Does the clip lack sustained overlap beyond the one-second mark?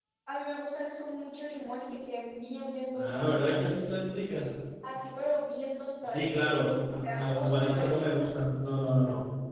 No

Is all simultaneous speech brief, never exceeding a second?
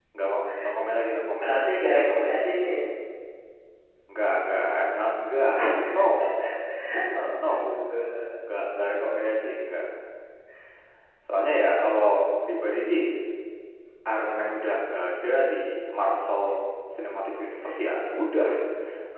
Yes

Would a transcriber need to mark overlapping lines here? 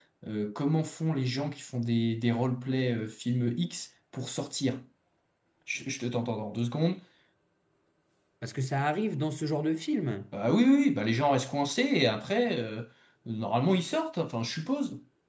No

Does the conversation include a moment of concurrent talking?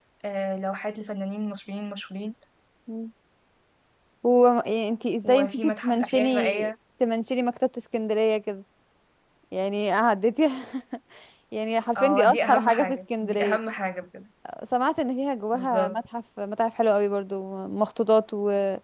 Yes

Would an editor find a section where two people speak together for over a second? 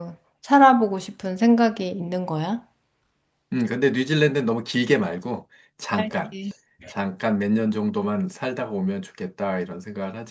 No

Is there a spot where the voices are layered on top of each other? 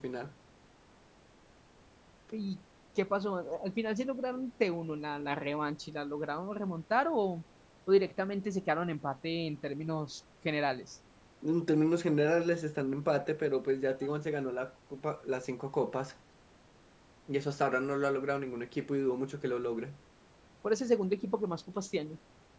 No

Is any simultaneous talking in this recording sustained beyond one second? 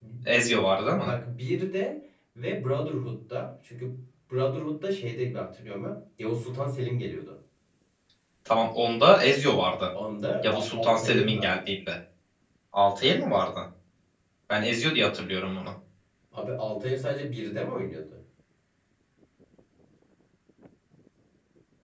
Yes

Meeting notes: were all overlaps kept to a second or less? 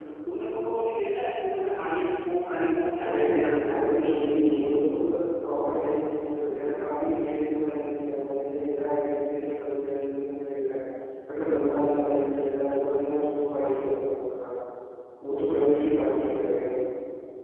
No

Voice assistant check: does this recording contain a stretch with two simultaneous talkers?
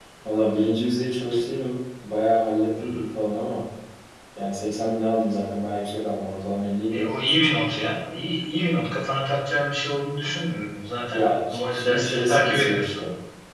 Yes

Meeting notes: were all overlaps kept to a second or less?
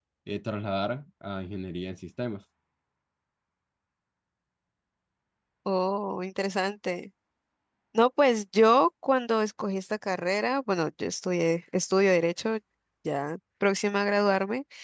Yes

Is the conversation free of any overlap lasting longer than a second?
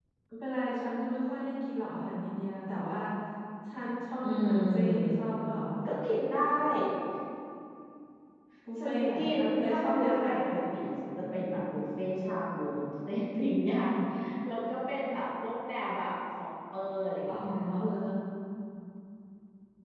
No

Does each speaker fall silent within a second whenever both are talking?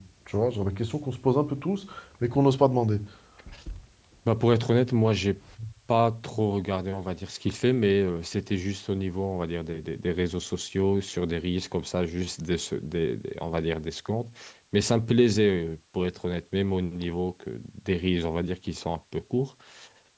Yes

